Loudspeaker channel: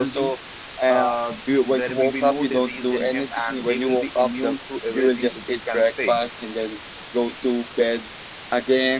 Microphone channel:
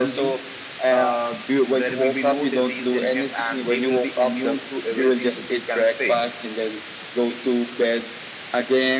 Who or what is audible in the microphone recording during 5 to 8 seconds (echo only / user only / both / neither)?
echo only